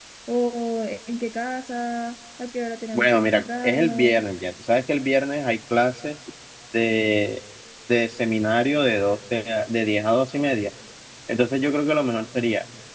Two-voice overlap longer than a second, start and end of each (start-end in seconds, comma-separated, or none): 2.9-4.2